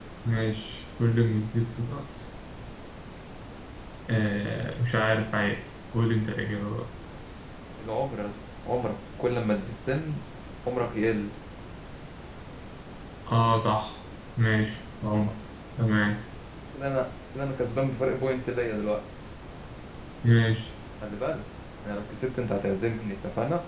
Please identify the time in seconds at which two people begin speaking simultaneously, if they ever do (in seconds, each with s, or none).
none